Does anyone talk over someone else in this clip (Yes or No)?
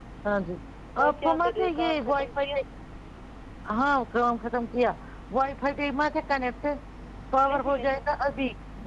Yes